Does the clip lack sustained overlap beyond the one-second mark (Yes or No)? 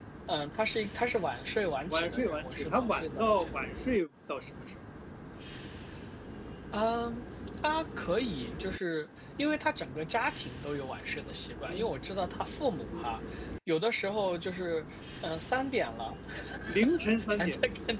No